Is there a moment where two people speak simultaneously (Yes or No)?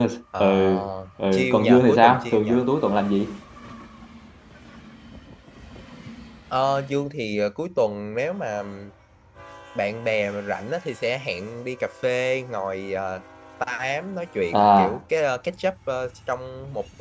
Yes